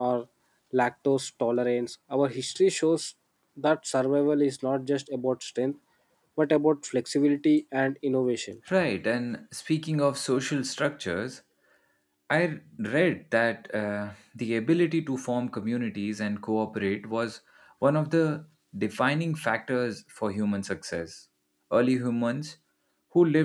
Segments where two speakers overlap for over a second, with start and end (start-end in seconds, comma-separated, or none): none